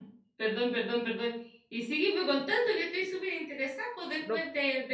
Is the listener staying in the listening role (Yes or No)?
Yes